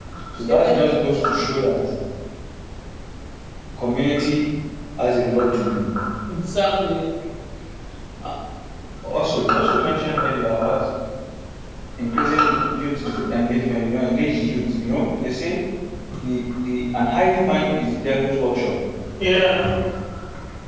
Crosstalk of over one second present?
No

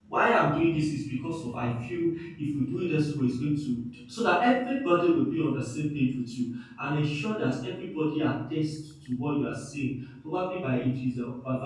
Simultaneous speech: No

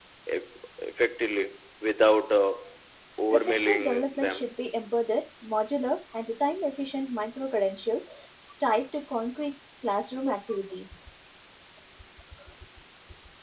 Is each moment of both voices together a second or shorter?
No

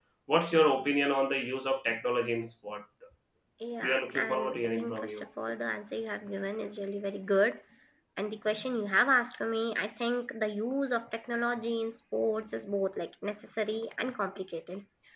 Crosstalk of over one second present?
Yes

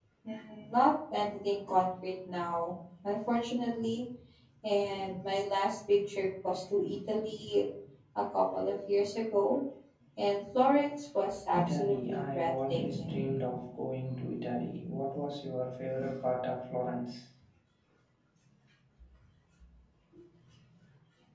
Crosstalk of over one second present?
Yes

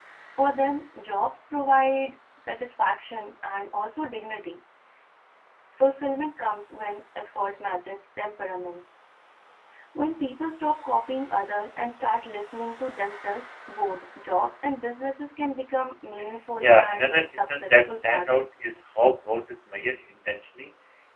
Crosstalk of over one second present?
Yes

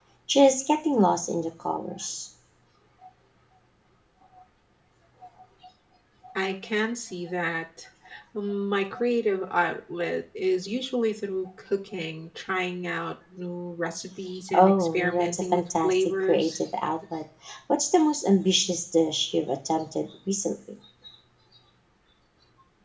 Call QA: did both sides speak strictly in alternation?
No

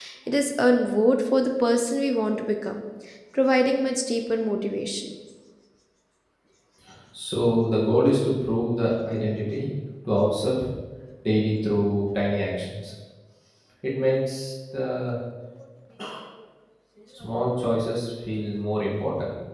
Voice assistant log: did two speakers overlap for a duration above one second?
No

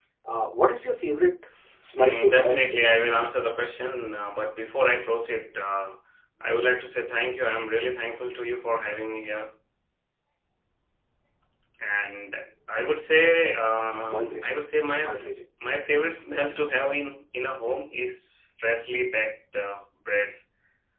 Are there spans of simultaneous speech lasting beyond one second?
Yes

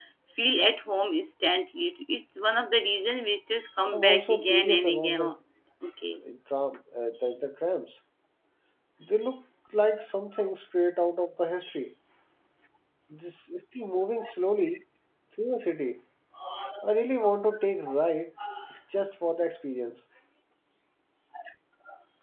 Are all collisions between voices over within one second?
No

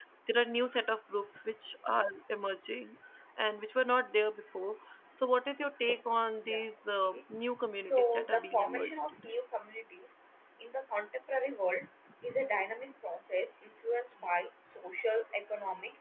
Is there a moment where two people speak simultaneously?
Yes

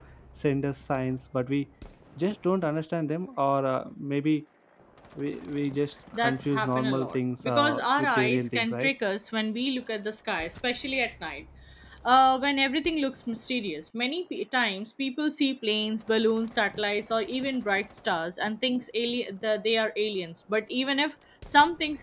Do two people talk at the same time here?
Yes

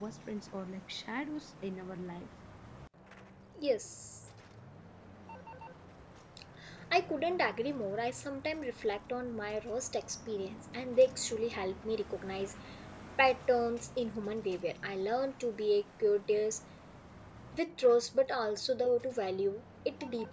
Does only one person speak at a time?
Yes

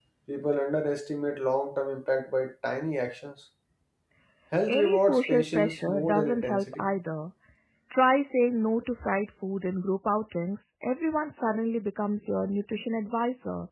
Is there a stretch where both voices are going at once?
Yes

